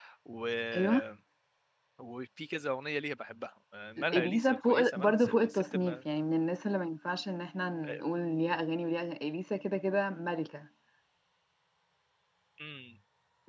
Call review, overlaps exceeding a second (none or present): present